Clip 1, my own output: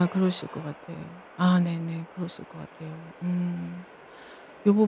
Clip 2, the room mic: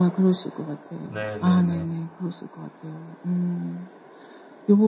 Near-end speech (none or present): present